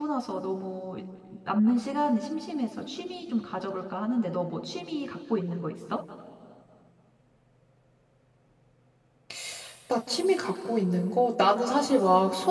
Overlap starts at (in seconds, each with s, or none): none